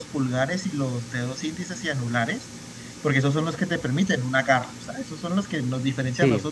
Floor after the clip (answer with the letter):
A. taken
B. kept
B